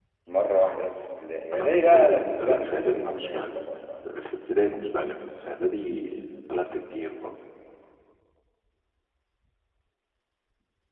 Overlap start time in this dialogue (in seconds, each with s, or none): 1.5 s